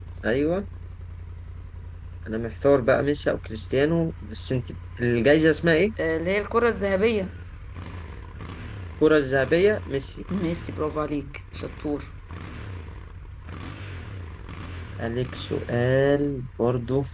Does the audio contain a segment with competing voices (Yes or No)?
No